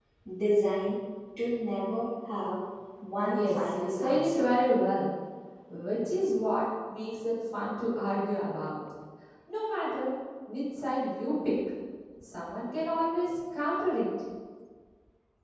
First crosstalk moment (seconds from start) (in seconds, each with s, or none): 3.2 s